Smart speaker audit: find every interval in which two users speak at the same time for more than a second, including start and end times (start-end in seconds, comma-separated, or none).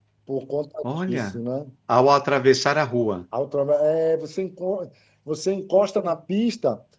none